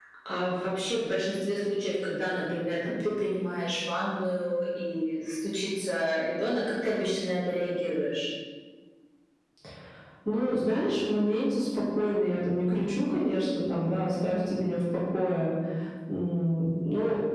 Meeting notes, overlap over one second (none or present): none